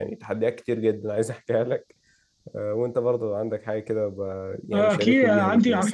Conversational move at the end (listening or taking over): taking over